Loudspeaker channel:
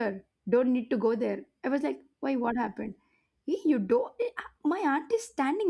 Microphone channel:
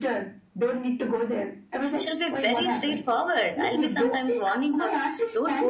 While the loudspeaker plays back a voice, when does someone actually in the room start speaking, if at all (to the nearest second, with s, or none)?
2 s